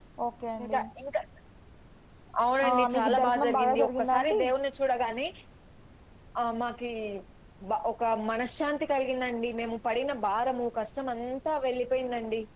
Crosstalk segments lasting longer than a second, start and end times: 2.7-4.4

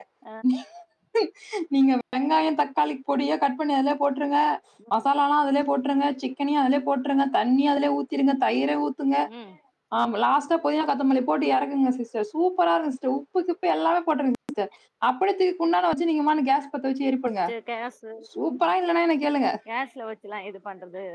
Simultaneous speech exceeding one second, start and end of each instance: none

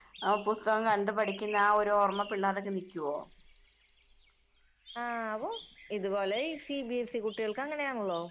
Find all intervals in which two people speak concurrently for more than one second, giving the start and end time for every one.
none

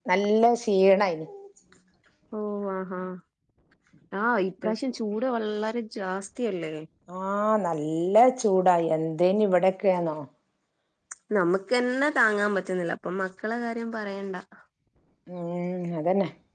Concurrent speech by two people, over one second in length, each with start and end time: none

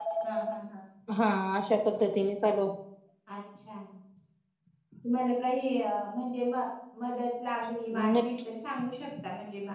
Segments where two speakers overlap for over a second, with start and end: none

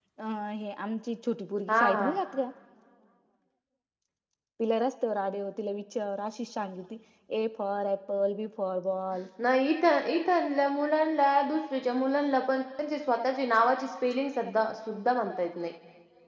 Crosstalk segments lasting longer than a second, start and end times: none

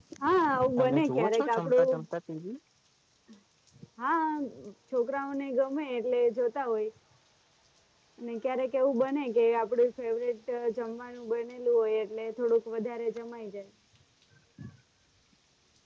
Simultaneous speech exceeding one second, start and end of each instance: 0.8-2.0

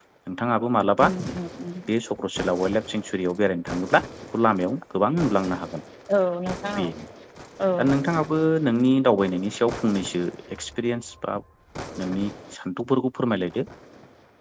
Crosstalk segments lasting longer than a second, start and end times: none

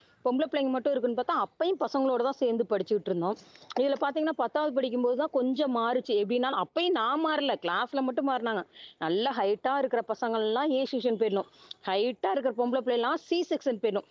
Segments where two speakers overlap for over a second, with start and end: none

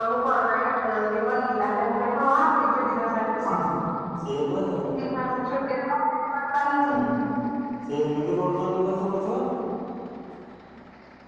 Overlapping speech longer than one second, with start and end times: none

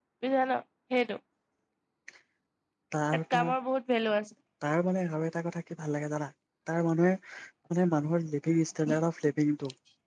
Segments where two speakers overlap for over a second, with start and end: none

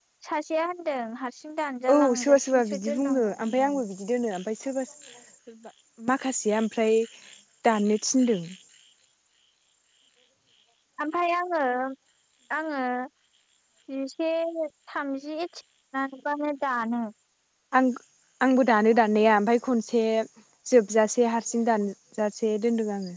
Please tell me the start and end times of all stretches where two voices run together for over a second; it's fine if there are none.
1.9-3.8

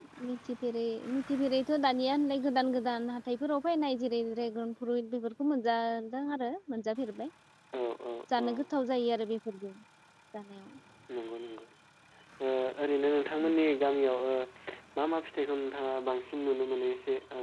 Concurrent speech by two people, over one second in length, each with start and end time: none

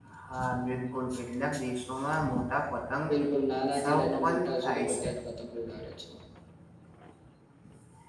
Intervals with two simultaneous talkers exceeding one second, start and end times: 3.7-5.1

